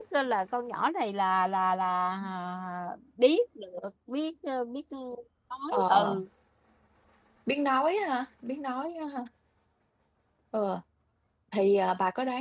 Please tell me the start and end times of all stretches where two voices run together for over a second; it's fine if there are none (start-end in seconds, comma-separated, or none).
none